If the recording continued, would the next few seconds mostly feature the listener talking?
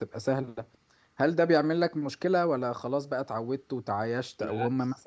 No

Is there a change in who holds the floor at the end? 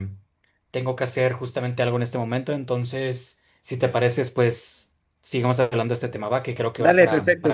Yes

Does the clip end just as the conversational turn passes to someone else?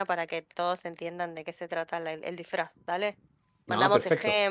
No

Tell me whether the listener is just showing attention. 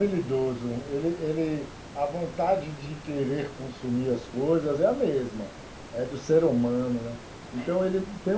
Yes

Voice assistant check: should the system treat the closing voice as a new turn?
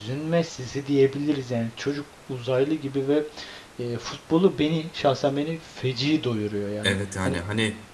Yes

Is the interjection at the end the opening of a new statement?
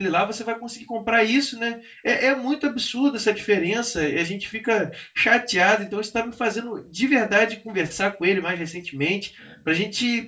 No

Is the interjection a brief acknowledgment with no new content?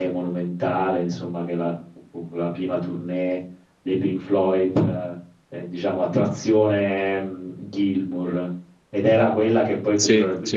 Yes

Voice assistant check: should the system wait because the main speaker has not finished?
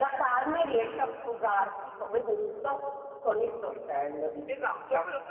No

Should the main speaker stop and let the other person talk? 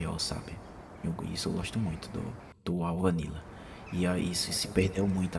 No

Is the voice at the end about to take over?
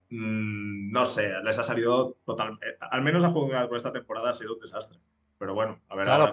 Yes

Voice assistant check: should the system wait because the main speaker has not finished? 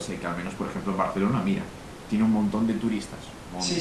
No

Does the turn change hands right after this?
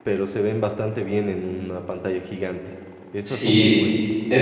Yes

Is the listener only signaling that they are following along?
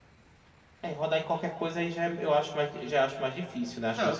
No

